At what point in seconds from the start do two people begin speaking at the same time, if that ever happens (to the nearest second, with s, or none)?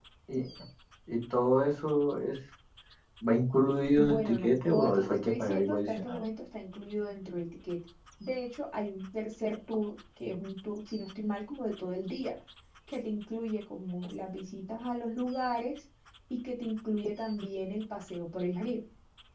4 s